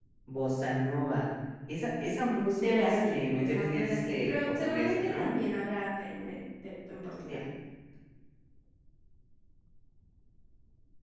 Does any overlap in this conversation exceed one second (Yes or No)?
Yes